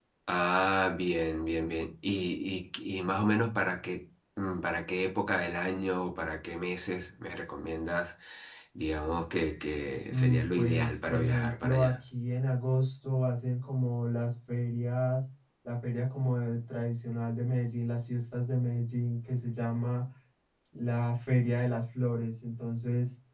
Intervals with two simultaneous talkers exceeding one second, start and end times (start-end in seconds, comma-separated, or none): 10.1-11.9